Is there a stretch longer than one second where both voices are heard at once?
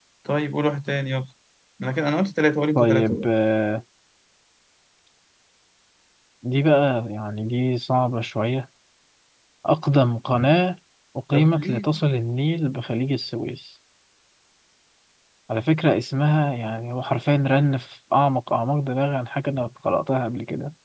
No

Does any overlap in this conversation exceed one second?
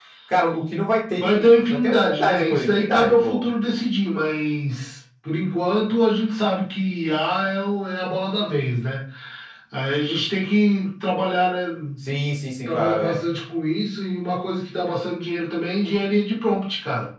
Yes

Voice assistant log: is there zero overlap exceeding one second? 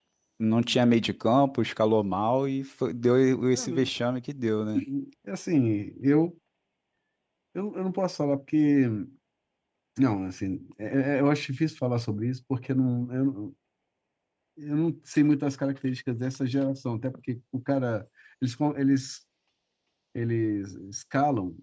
Yes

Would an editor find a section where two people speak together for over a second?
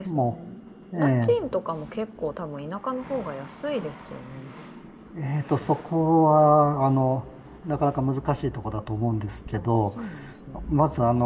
No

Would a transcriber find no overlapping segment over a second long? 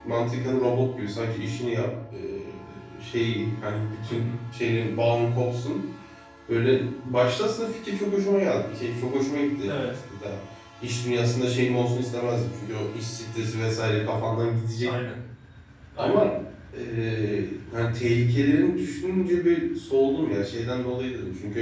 Yes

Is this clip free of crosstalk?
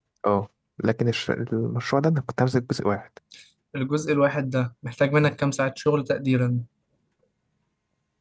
Yes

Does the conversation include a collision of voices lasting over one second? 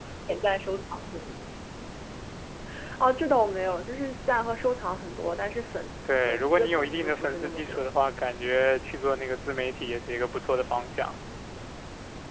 Yes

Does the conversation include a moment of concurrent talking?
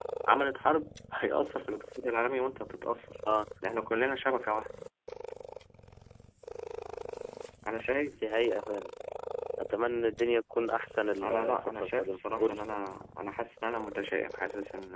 Yes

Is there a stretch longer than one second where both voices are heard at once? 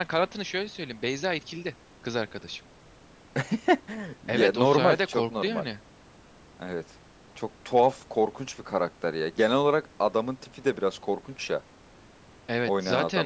Yes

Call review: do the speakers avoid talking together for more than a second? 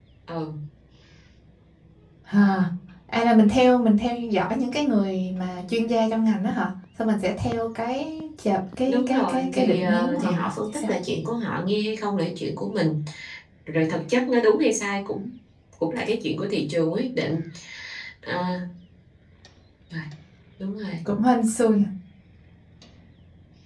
No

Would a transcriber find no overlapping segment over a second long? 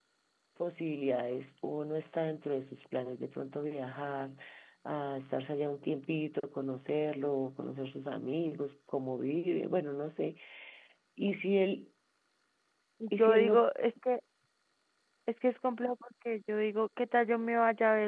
Yes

